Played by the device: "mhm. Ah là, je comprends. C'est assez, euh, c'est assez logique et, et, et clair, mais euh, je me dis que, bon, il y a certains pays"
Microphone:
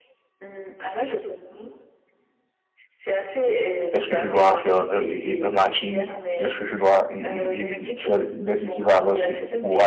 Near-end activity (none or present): present